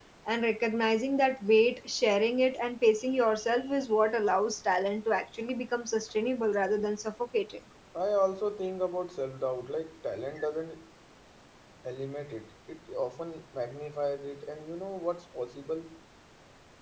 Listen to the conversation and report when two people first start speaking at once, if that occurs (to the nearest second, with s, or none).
none